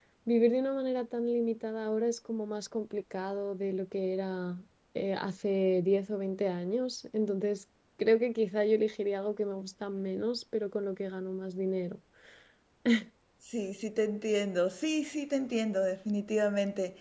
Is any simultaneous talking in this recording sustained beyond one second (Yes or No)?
No